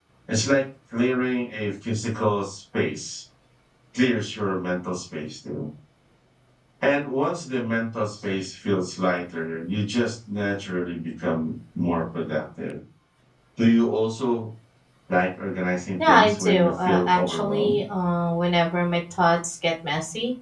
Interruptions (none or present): present